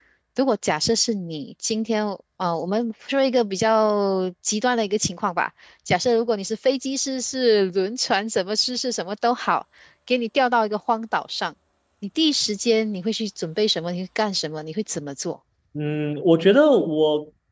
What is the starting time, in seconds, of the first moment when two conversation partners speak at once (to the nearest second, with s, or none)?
none